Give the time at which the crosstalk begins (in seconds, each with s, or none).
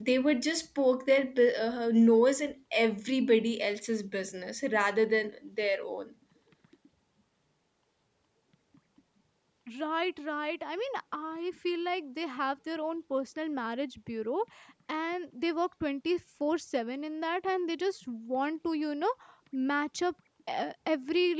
none